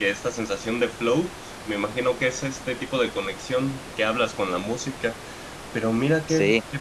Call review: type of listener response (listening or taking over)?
listening